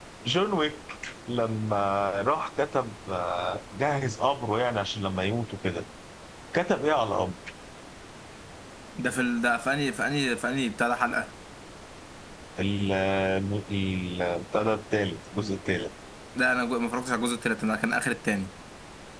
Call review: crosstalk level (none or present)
none